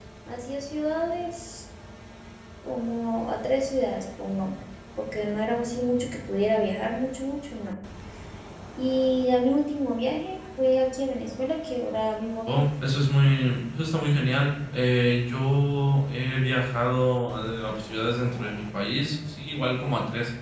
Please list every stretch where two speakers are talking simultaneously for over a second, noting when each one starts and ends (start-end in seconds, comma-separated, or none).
none